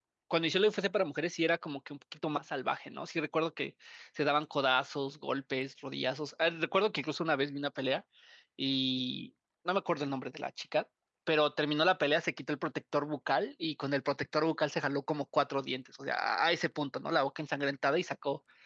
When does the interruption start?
none

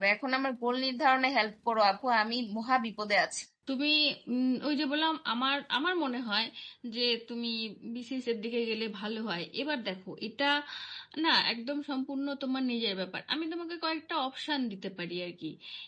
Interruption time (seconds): none

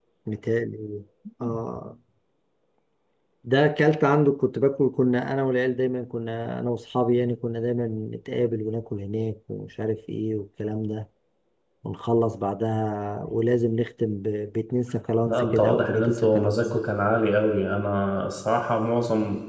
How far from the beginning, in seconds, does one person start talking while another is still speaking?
15.3 s

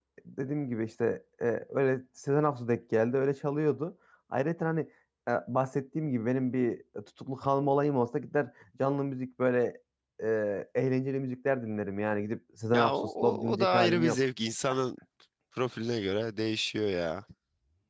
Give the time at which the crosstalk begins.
12.7 s

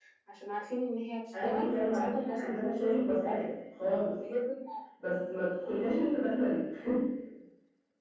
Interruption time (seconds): 1.3 s

